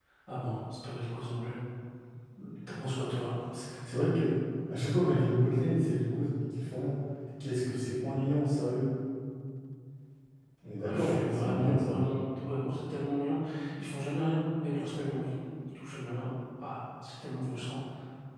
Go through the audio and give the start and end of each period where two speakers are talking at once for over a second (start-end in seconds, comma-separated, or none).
10.8-12.0